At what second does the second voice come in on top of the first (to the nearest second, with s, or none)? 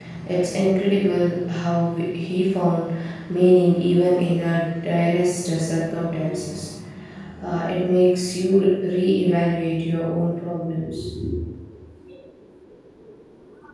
none